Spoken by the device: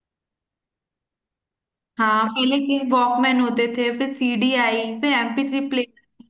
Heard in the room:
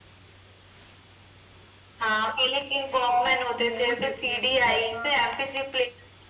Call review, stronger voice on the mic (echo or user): echo